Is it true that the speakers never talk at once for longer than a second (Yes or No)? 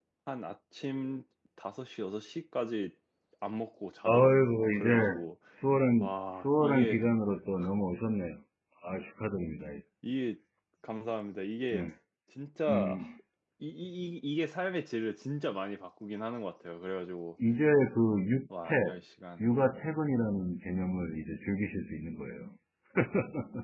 No